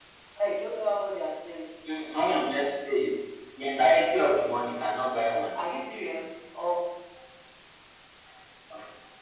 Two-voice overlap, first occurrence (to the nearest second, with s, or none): none